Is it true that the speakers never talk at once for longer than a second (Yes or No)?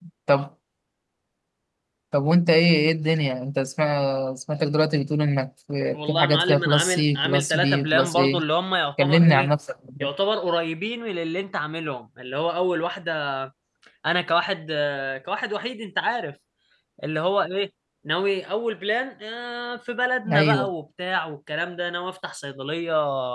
No